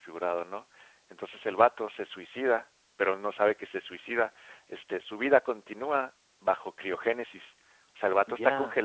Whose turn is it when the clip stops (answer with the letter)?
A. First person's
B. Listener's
A